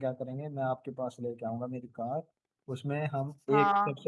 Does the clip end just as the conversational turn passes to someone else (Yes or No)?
No